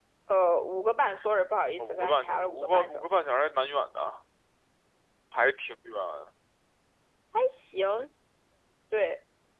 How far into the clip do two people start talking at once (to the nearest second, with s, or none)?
2 s